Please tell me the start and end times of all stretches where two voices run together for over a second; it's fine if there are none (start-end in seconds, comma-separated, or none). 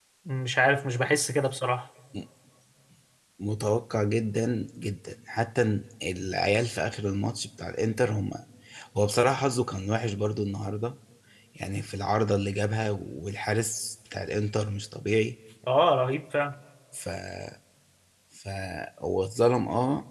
none